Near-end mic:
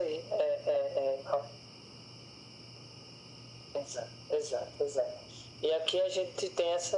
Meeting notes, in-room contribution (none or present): none